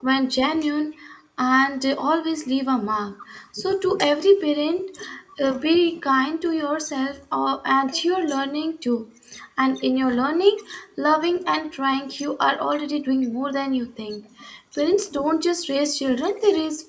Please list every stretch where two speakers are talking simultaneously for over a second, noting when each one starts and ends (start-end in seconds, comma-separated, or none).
none